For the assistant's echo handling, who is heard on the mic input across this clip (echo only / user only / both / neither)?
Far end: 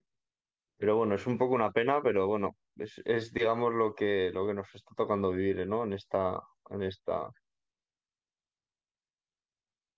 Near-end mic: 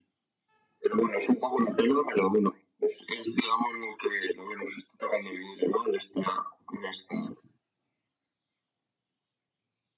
echo only